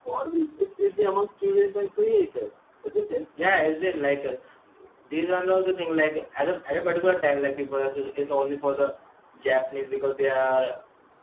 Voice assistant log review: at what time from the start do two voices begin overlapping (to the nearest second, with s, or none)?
none